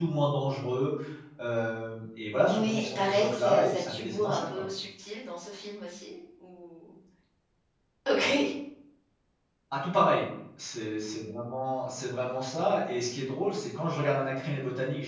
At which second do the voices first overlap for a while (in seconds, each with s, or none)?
2.4 s